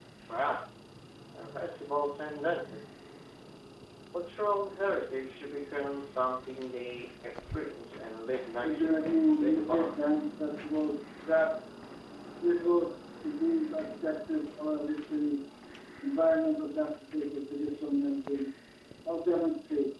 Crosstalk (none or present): present